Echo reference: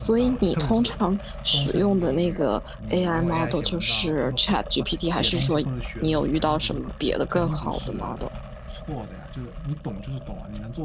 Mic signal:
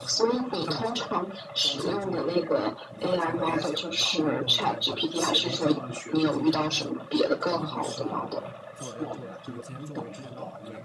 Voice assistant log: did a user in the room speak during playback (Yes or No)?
Yes